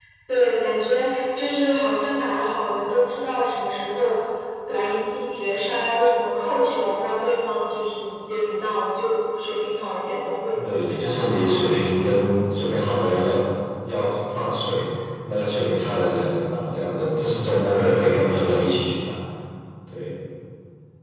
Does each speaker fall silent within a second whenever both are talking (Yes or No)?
No